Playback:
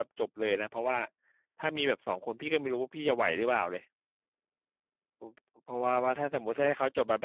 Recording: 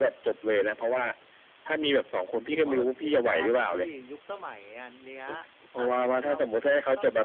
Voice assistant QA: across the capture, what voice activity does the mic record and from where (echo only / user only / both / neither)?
both